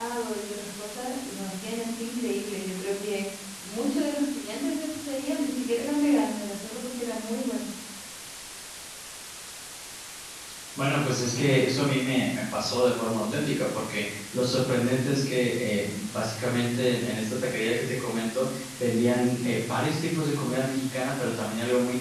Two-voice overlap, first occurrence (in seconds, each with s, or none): none